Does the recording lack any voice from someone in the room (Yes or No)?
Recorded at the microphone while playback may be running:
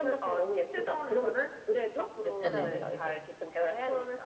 No